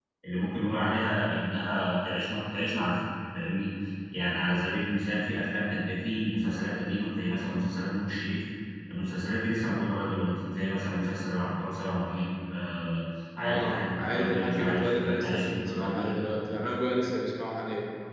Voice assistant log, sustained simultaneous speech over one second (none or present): present